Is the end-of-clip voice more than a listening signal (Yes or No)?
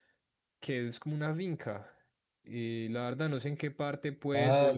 Yes